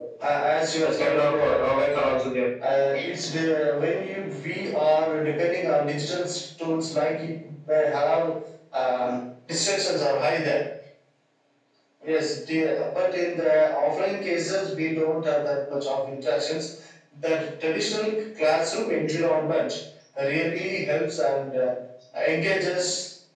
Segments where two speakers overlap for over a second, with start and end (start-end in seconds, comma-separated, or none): 0.8-2.2